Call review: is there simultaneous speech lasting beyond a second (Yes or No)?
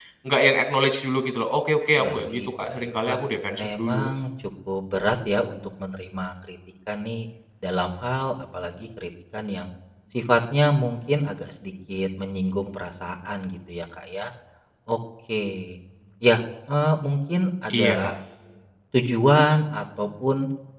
Yes